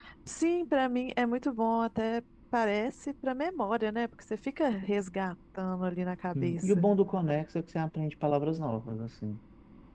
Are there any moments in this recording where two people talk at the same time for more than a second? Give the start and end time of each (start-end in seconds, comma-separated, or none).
none